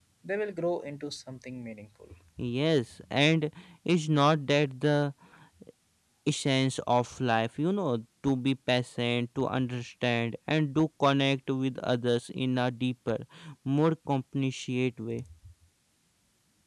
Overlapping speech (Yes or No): No